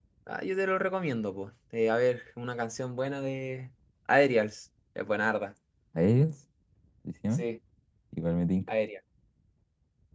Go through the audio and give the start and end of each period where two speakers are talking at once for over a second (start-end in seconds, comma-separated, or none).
none